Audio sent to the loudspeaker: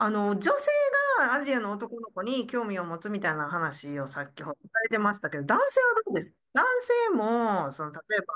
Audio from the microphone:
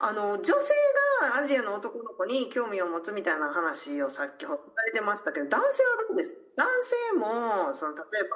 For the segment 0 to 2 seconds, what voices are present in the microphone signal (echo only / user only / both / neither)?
echo only